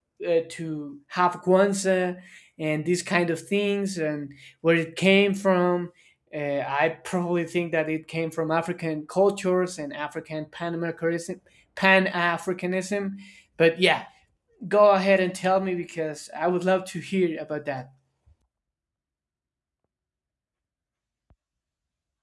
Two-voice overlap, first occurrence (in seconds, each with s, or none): none